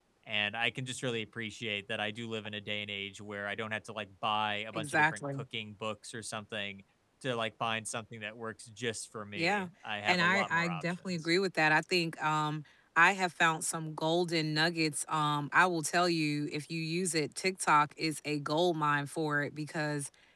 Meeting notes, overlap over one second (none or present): present